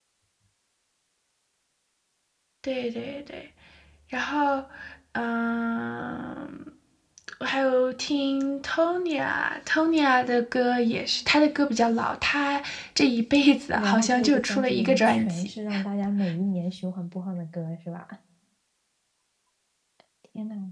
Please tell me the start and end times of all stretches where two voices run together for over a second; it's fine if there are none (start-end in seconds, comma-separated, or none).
13.7-15.5